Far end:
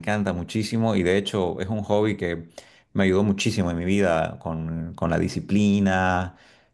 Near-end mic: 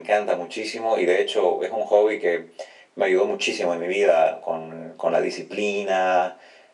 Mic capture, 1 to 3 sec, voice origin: echo only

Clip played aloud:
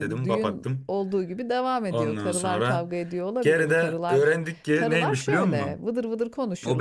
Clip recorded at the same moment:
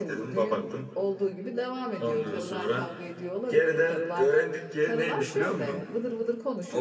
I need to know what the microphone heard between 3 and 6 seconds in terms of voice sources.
echo only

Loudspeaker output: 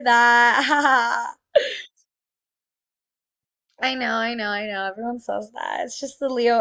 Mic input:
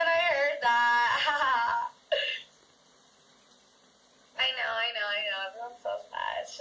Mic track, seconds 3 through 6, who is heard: echo only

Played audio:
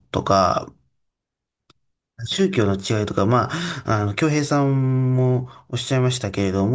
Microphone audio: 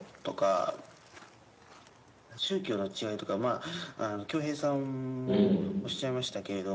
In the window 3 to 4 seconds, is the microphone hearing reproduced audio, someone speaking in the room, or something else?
echo only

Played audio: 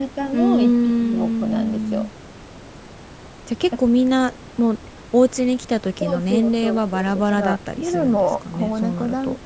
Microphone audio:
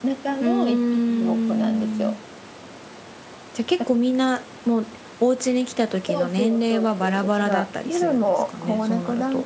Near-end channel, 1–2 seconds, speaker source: echo only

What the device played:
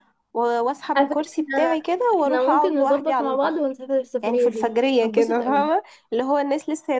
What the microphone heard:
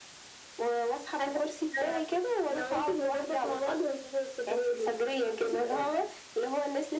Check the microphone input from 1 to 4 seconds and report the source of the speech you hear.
echo only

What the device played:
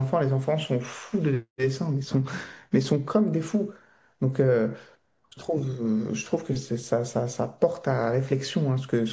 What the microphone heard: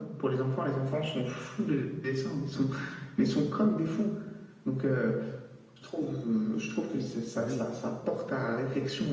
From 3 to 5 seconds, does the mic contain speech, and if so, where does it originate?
echo only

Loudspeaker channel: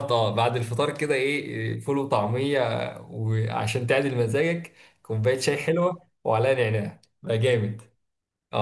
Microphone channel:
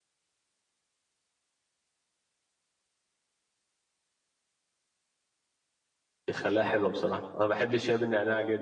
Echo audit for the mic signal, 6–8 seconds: user only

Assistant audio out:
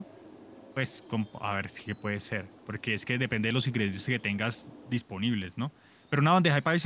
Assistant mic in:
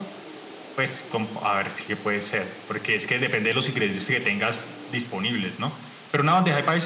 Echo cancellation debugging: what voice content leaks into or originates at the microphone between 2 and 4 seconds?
echo only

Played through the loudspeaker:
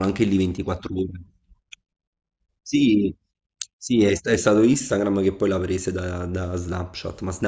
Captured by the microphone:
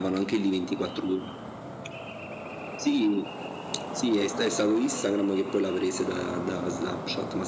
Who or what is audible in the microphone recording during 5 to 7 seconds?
echo only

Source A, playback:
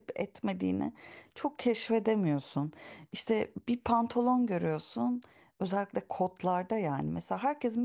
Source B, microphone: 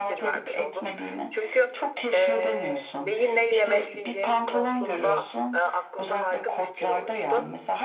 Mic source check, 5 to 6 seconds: both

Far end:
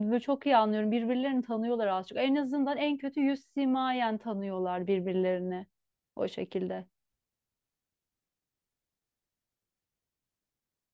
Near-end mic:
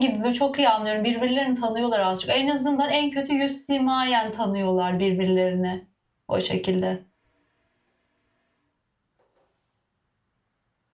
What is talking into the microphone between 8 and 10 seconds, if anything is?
neither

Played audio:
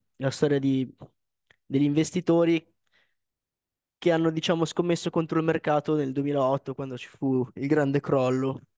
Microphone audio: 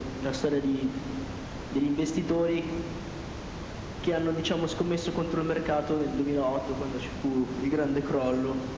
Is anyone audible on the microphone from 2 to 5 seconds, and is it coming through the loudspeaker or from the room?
echo only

